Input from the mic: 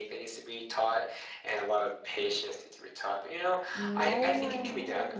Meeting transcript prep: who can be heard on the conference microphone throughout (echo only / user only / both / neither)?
both